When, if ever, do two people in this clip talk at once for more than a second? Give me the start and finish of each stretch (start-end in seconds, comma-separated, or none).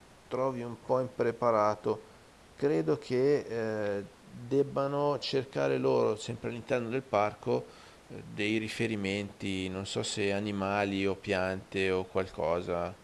none